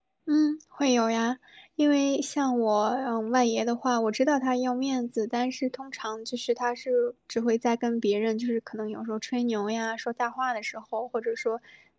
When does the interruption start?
none

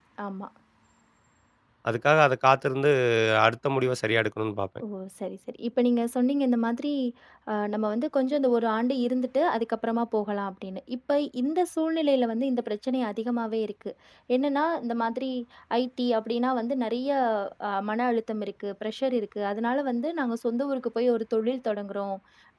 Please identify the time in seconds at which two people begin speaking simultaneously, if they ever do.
none

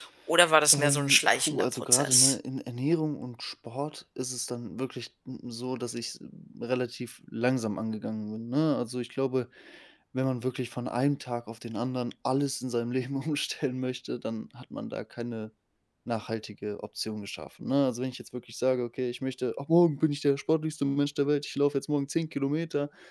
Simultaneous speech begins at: 0.7 s

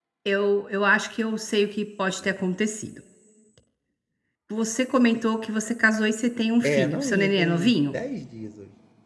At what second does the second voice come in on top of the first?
6.6 s

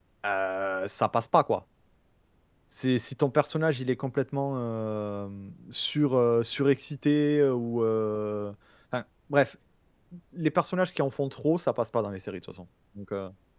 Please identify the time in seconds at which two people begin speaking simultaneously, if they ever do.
none

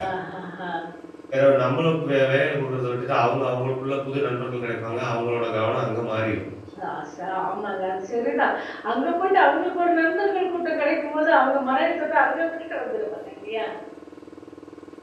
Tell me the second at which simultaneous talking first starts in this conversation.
none

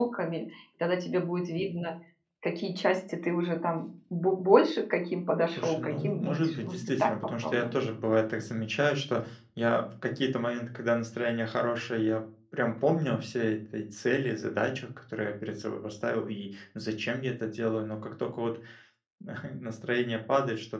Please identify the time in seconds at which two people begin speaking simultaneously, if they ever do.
5.5 s

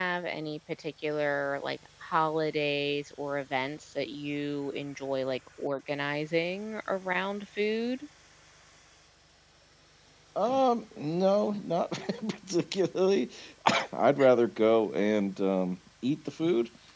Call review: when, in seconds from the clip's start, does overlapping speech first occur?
none

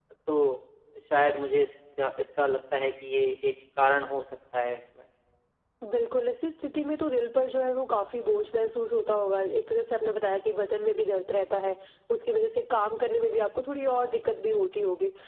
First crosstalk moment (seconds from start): none

